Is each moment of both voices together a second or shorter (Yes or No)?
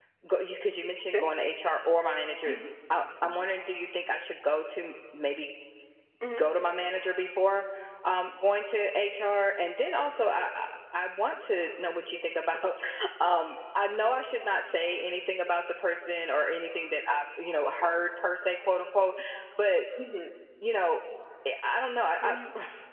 Yes